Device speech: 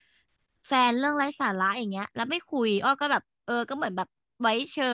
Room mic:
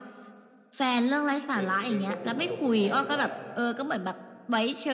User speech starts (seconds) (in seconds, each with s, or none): 1.5 s